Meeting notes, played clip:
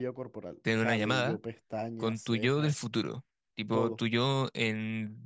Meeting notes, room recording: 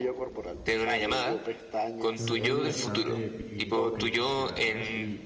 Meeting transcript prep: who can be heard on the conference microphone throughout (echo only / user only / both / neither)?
both